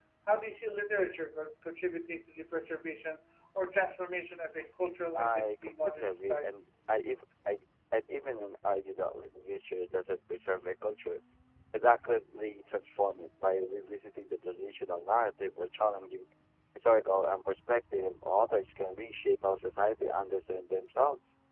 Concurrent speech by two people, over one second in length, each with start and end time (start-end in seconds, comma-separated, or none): 5.2-6.5